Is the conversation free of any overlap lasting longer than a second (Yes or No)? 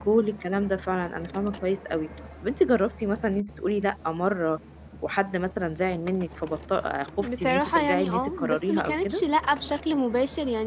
No